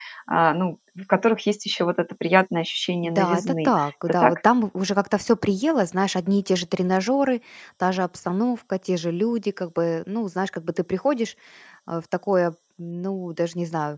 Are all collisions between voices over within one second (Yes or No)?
No